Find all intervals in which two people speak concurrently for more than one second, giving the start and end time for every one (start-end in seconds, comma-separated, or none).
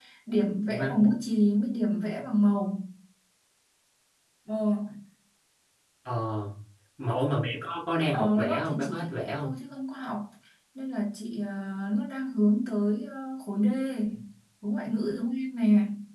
8.1-9.5